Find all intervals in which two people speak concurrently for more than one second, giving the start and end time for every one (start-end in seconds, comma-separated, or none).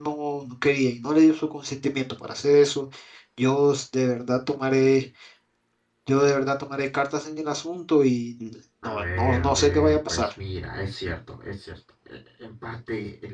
8.8-10.3